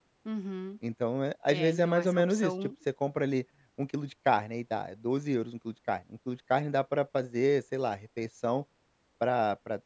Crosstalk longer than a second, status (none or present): present